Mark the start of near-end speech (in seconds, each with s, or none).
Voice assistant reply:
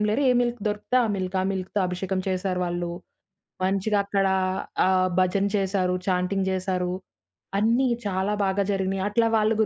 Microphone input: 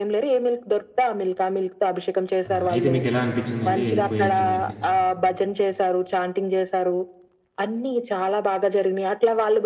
2.4 s